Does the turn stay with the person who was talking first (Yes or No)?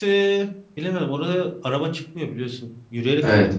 No